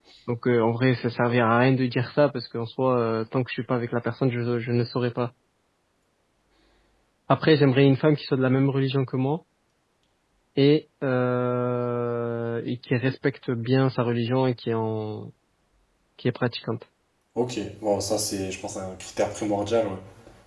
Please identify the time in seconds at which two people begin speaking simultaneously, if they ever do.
none

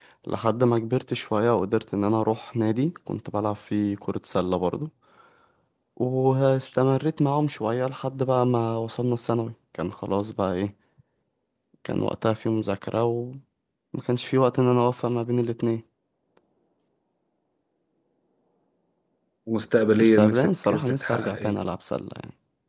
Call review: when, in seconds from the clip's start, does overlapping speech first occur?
20 s

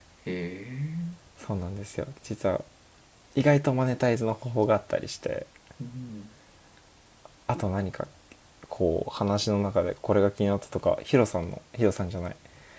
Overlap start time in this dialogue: none

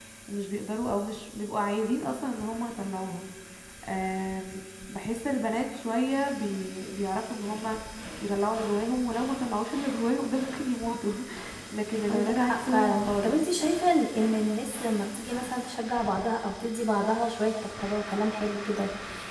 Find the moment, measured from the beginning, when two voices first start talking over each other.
12 s

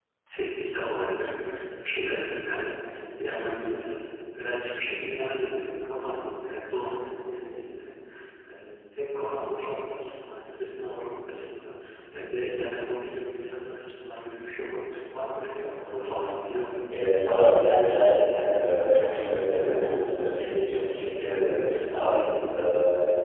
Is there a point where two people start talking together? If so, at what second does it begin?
none

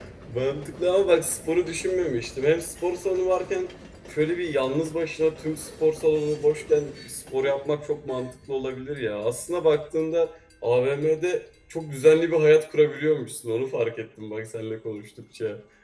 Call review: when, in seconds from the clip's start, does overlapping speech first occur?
none

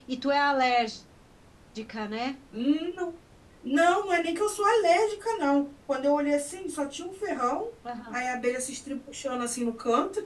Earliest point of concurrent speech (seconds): none

